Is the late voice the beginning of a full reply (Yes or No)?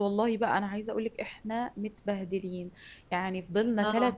No